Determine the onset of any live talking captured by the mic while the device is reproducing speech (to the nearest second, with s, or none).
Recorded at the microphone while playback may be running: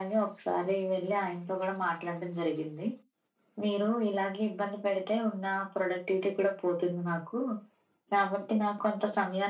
none